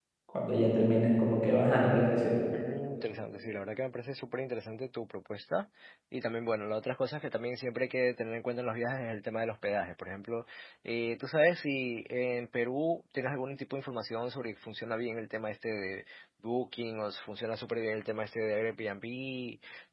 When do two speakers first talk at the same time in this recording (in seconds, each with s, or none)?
none